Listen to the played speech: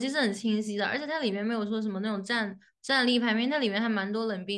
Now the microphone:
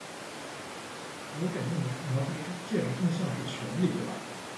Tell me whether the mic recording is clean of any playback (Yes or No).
Yes